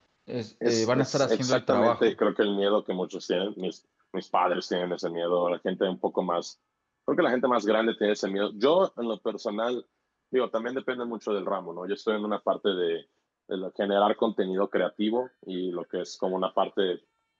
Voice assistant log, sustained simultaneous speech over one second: present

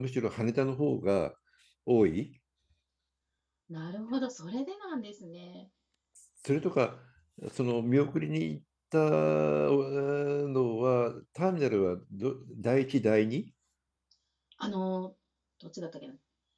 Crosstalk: none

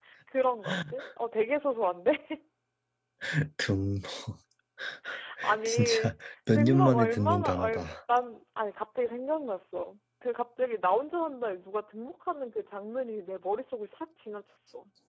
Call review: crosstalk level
present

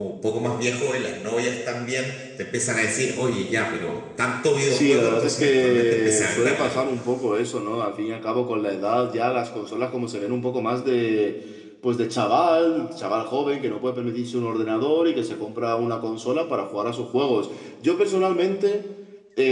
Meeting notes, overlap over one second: present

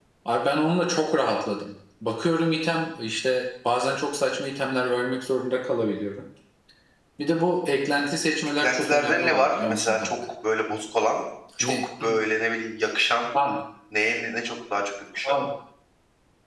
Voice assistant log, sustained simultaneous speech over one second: present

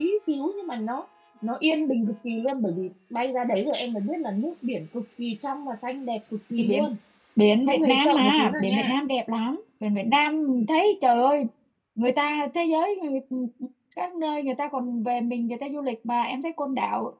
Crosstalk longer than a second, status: present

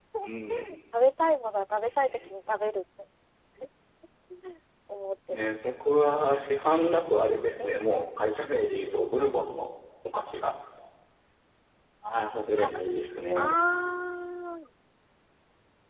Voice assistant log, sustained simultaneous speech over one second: none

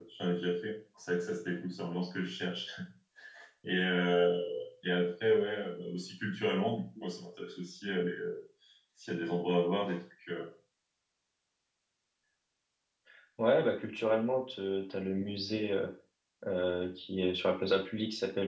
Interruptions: none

